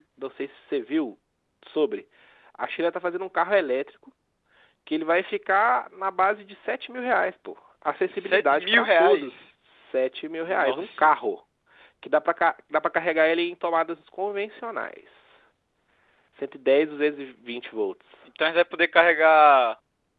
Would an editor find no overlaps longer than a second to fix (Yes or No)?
No